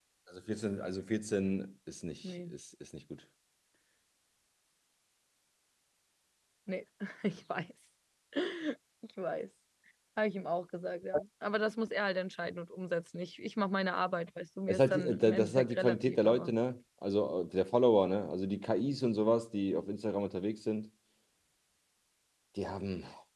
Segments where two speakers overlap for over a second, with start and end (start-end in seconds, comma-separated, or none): 14.7-16.5